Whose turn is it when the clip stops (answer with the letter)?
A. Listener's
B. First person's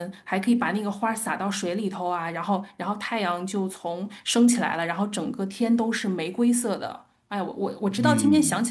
A